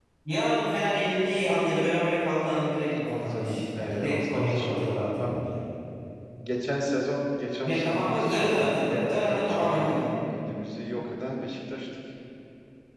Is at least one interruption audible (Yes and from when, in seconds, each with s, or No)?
Yes, from 2.9 s